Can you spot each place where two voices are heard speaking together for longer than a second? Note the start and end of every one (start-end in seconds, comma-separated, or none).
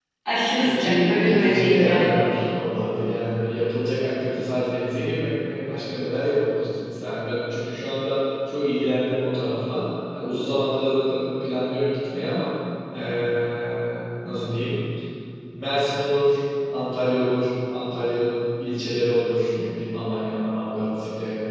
0.6-2.2